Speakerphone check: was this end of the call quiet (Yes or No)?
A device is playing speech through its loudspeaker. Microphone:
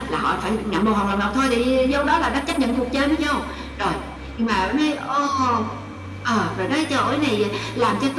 Yes